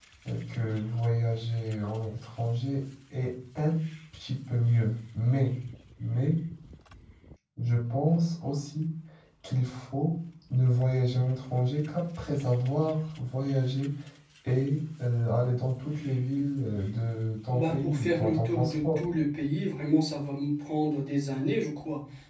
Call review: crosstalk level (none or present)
present